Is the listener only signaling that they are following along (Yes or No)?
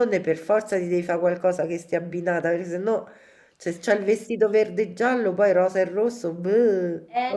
No